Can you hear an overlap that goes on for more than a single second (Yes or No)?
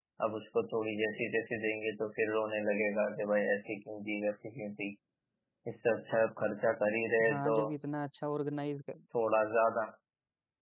No